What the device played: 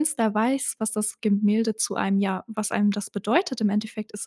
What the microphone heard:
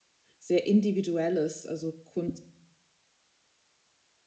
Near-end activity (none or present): present